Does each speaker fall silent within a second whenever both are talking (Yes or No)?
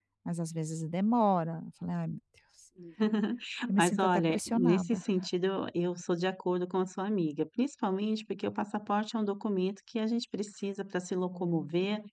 No